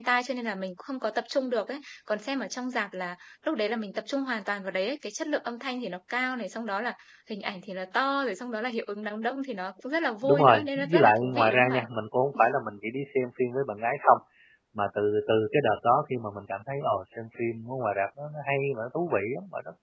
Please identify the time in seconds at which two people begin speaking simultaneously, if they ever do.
10.2 s

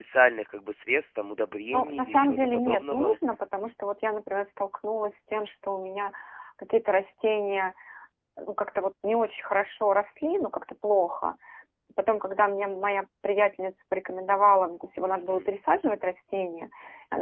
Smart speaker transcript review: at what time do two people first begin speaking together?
1.7 s

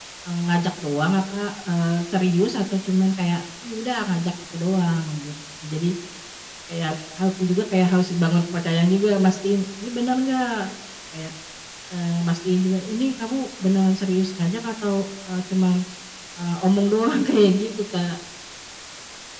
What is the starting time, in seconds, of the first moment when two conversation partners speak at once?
none

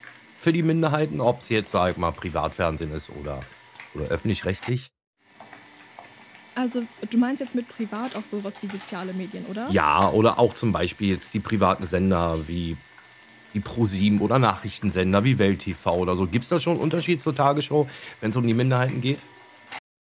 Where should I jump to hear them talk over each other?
none

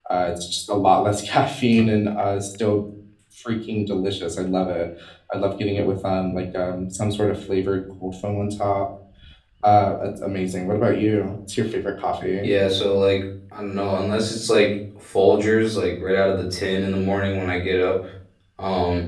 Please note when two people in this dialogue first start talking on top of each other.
none

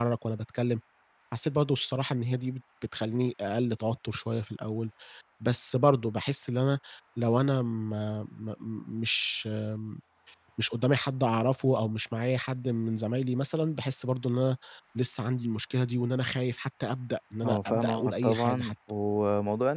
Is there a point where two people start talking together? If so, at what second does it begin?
17.4 s

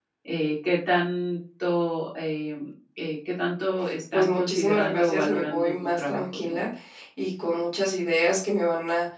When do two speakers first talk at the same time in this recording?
4.1 s

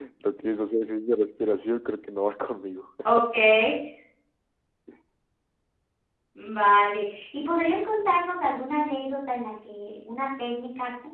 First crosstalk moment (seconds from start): none

